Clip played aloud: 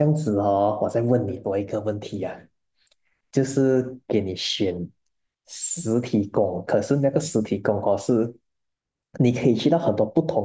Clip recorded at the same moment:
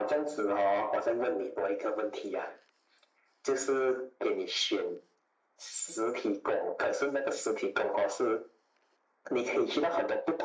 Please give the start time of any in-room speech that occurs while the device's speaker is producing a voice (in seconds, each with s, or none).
none